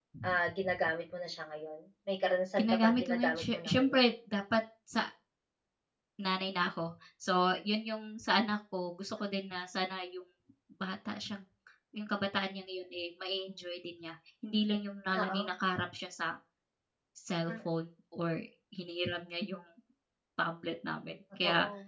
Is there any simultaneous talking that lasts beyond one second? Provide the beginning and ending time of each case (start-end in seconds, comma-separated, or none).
2.6-4.0